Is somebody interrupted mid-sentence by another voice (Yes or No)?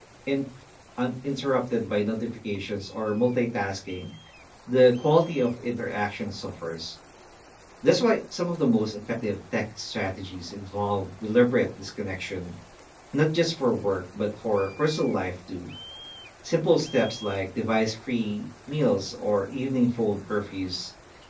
No